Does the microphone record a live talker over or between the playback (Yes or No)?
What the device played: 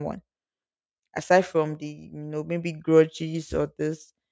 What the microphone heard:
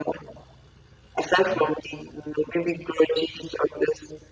Yes